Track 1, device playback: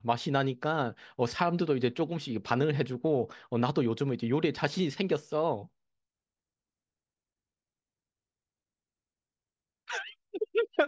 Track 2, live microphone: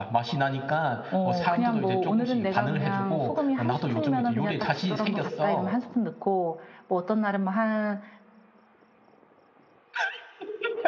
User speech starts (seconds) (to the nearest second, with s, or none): 1 s